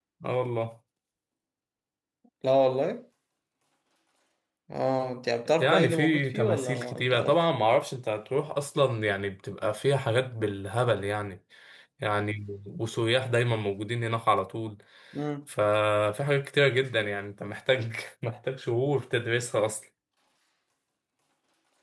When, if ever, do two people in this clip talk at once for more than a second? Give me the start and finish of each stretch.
5.5-7.4

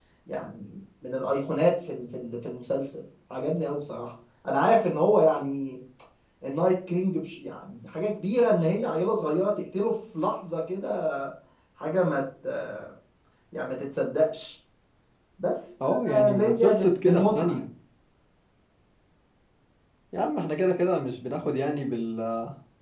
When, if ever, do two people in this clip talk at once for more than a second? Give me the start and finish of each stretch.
15.9-17.5

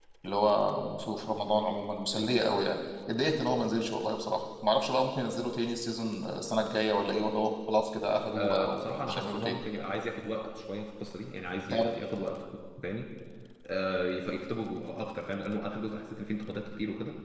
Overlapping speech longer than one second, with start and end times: 8.3-9.6

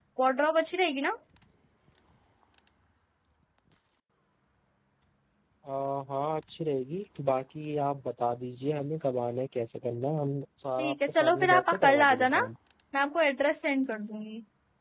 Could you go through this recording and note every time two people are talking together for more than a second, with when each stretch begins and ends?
10.8-12.4

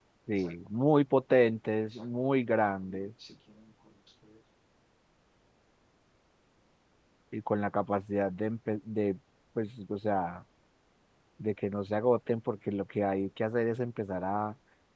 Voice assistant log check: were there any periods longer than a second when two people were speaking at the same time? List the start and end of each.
none

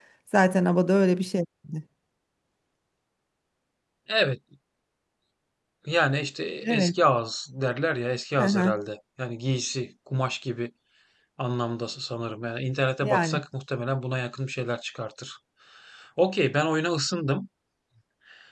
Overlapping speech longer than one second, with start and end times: none

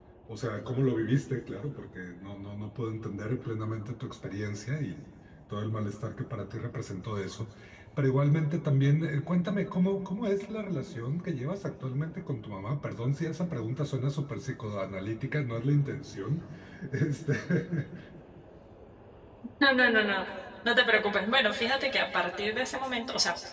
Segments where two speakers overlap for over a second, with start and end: none

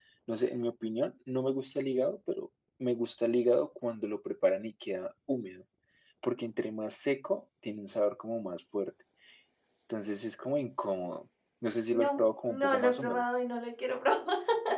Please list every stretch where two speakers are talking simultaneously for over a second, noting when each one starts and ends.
11.9-13.2

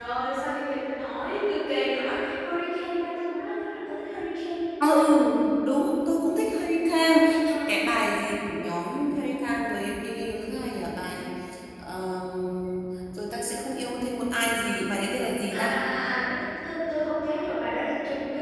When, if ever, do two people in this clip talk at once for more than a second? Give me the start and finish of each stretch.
none

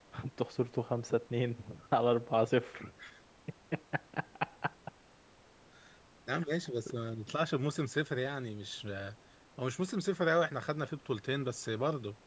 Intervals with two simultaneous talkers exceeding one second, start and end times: none

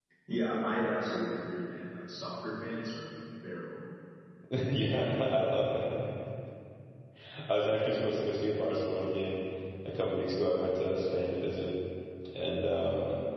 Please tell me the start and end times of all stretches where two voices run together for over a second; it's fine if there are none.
none

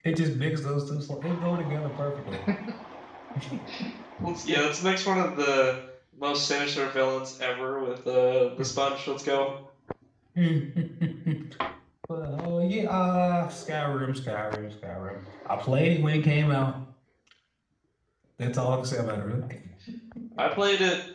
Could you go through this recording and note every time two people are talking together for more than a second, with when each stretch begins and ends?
none

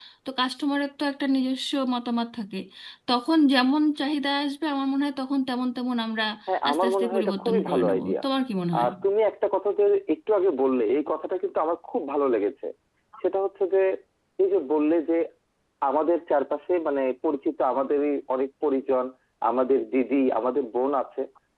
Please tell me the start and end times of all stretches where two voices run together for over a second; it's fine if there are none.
6.7-8.2

